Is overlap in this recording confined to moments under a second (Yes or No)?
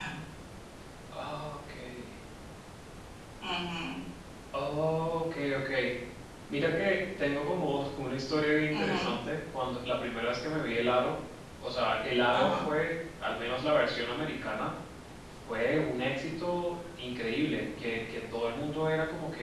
Yes